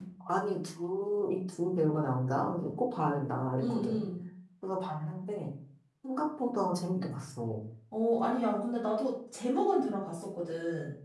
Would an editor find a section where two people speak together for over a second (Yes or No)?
No